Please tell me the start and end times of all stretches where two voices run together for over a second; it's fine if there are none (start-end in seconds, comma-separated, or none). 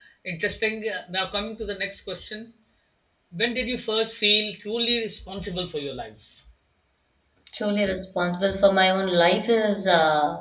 none